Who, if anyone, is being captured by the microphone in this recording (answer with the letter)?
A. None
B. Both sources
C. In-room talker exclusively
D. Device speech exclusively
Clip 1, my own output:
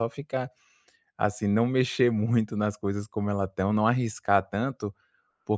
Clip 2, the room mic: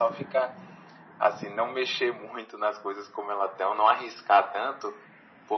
D